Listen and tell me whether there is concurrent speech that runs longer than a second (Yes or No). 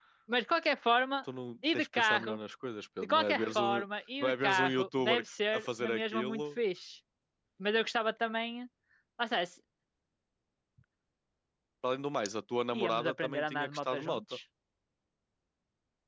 Yes